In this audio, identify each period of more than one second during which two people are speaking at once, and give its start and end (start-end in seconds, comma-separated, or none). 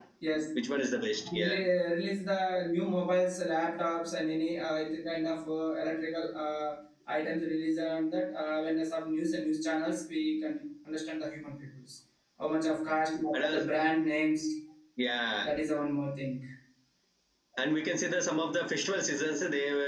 none